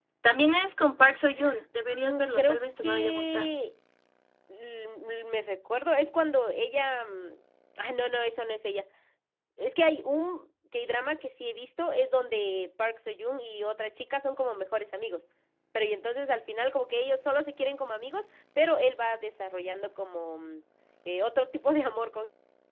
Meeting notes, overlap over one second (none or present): present